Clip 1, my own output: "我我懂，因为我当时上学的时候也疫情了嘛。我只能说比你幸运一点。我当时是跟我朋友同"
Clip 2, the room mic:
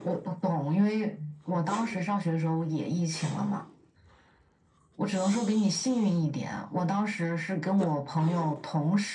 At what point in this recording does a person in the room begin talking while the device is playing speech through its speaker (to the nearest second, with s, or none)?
none